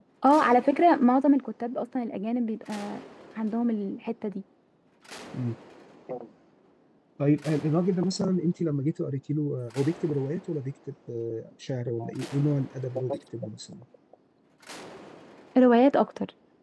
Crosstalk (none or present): none